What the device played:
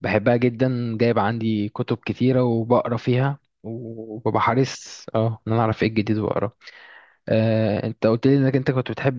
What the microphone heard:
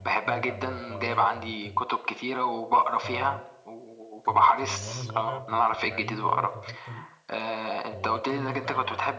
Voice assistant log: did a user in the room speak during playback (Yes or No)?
Yes